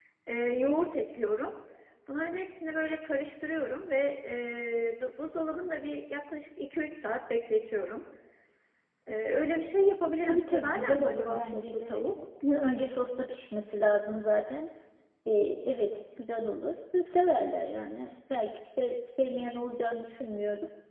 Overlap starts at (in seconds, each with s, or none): 10.3 s